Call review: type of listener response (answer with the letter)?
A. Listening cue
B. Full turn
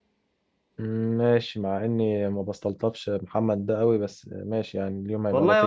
B